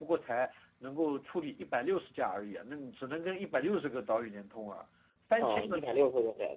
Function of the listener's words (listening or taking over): taking over